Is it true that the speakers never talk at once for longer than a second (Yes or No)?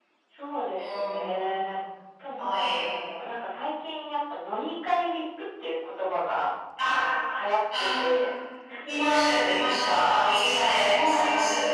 Yes